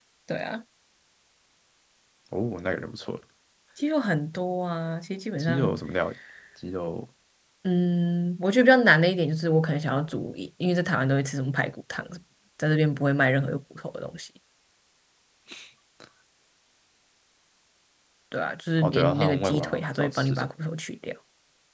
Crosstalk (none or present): present